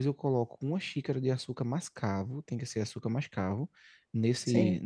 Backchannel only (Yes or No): Yes